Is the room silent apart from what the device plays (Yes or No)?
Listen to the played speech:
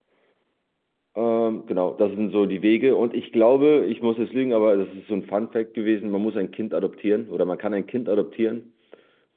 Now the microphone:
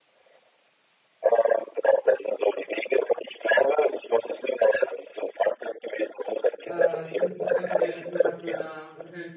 No